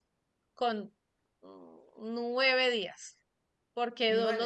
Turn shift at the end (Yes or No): No